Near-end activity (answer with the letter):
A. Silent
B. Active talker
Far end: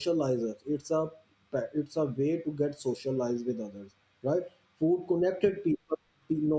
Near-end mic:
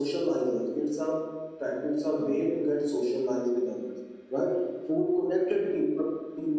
A